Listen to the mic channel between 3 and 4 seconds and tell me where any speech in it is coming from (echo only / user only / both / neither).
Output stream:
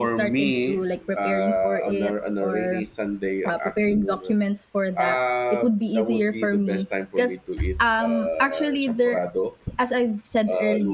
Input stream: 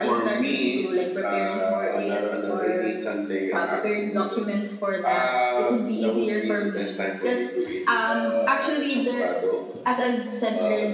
echo only